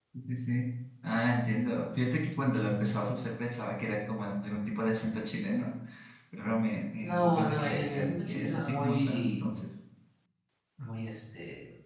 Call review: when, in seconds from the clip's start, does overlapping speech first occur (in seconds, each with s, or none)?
7.0 s